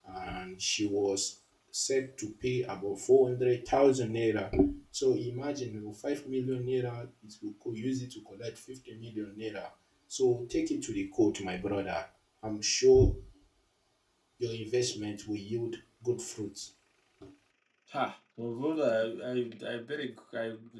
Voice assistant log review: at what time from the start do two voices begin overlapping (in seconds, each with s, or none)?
none